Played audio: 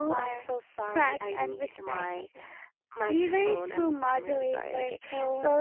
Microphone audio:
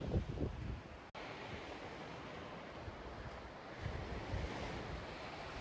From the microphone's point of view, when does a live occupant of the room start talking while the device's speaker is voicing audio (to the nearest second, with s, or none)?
none